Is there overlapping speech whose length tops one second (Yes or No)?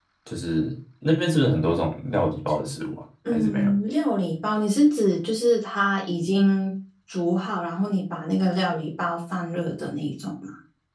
No